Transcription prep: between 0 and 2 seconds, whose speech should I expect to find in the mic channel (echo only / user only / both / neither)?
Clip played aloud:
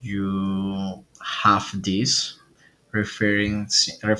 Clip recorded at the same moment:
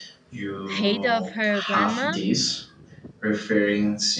both